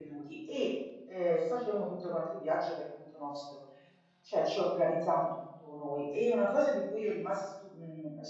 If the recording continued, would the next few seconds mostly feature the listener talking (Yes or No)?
No